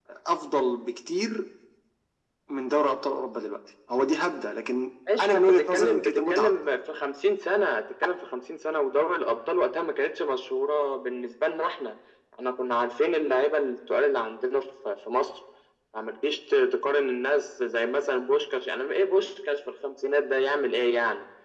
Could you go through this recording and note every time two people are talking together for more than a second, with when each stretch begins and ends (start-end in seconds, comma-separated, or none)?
5.2-6.6